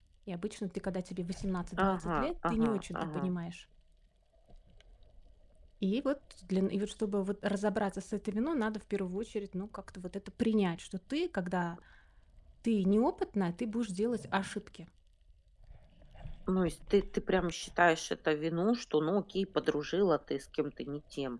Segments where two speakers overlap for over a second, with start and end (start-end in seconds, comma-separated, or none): 1.8-3.2